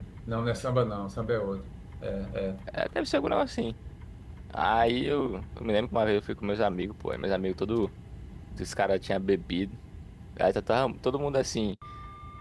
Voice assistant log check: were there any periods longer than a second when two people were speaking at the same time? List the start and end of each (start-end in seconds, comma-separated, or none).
none